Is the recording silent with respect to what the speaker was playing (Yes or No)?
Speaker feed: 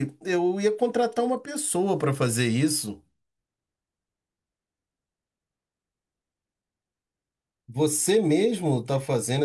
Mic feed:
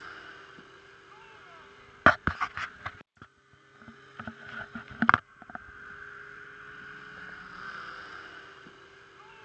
Yes